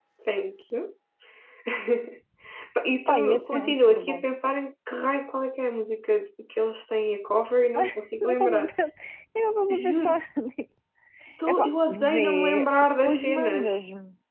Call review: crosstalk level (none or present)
present